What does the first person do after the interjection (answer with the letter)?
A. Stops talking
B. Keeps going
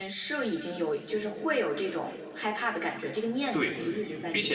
A